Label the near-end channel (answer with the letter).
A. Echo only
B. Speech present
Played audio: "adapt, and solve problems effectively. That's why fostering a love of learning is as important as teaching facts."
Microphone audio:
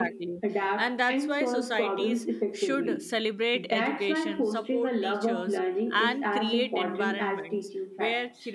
B